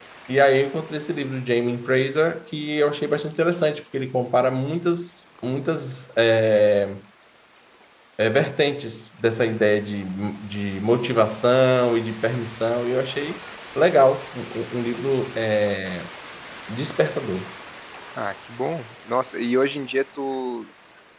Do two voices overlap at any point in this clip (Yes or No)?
No